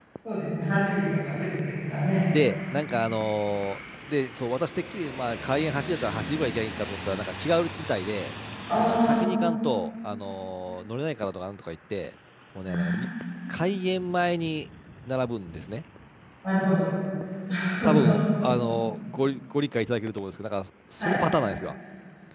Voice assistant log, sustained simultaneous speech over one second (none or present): none